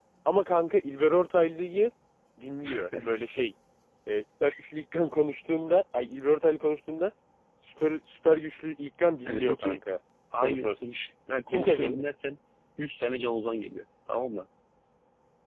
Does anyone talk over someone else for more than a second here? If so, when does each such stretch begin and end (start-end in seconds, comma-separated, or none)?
none